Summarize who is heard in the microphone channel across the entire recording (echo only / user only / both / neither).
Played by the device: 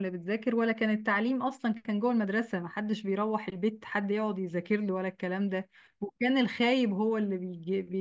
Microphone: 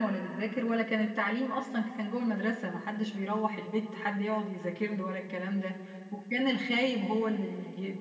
echo only